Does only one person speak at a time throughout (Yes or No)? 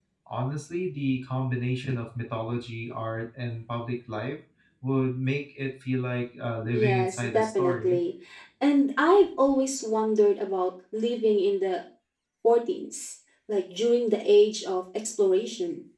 No